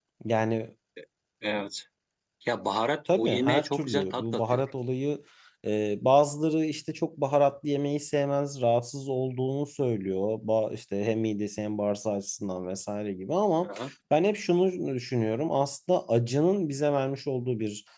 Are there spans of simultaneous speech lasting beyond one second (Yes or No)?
Yes